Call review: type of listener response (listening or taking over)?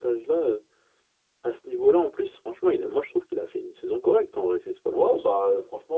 taking over